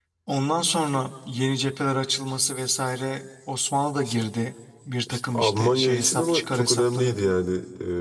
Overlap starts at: 5.1 s

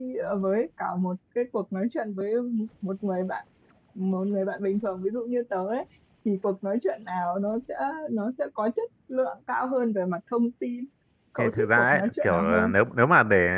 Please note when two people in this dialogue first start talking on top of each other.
11.4 s

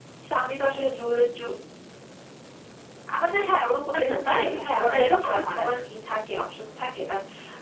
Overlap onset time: 4.0 s

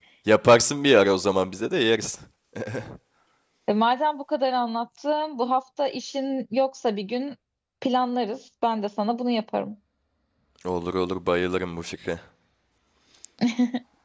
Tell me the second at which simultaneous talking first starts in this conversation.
none

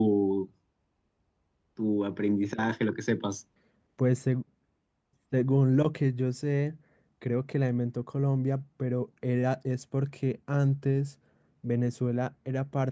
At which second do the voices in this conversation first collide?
none

